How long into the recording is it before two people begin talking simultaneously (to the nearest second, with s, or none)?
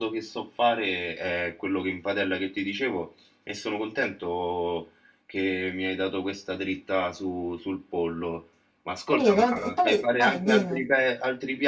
9 s